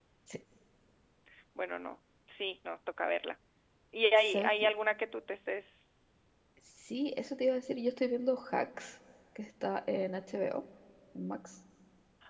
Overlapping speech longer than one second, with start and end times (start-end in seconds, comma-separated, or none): none